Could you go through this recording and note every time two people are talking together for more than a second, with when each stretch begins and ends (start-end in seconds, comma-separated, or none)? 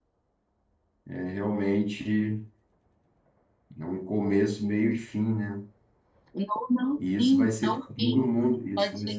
7.0-8.3